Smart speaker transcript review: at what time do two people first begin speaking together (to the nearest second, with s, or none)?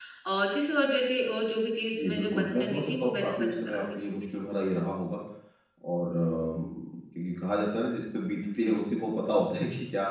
2 s